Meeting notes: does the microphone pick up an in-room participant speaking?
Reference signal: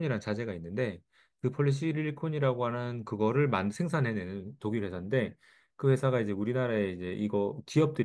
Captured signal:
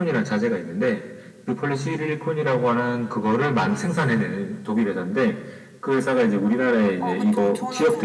Yes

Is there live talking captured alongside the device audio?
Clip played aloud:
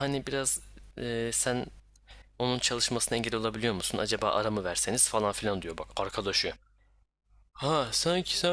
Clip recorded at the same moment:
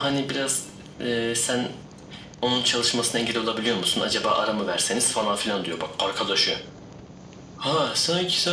No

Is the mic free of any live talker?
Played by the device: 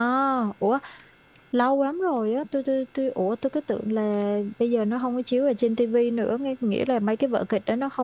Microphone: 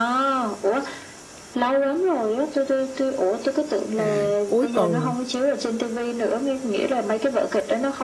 No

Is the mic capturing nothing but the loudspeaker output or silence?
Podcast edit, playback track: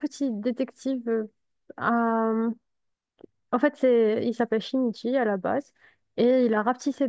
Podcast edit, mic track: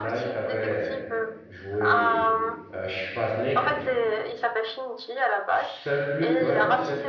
No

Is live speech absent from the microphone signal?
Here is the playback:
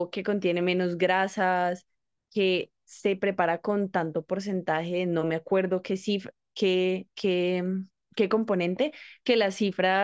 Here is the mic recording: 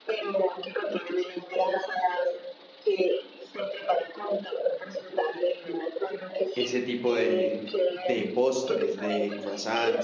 No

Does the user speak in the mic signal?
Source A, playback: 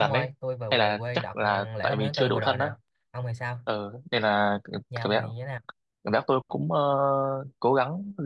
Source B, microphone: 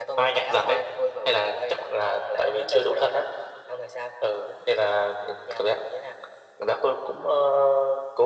No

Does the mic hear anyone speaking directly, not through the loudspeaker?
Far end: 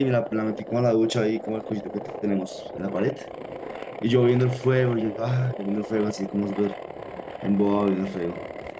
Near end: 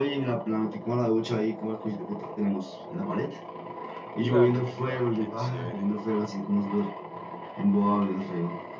Yes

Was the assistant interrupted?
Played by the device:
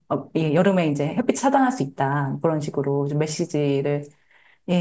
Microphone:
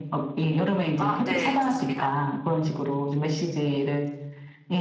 Yes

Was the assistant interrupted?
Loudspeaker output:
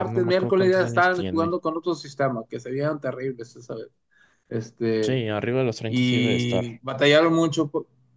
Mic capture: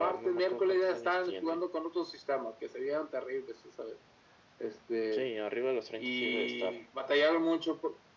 No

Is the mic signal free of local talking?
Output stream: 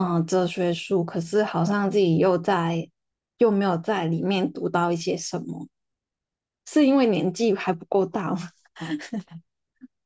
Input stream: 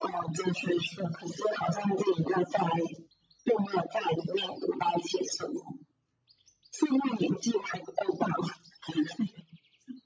Yes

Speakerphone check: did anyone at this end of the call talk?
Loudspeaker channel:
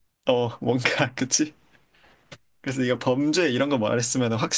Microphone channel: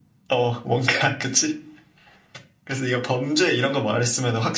No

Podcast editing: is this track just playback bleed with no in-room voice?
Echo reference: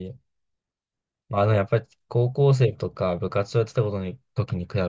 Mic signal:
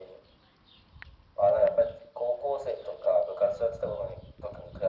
Yes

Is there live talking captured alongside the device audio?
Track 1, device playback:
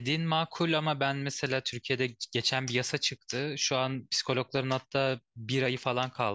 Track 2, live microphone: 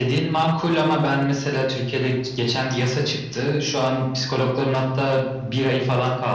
No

